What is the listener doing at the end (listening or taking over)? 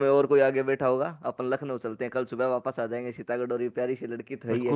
taking over